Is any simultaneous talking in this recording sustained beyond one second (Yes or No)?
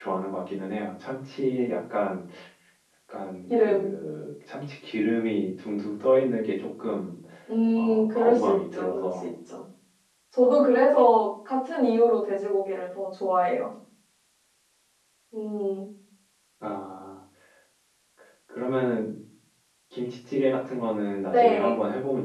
Yes